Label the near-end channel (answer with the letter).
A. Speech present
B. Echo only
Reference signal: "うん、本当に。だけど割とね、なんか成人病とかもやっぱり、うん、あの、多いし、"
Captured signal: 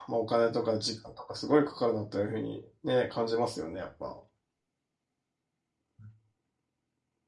A